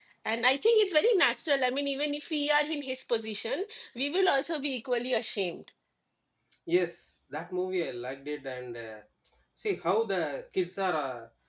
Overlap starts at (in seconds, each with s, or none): none